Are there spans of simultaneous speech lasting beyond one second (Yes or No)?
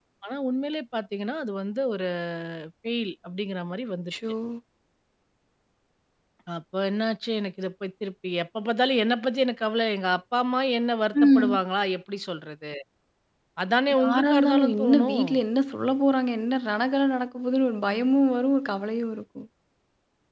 Yes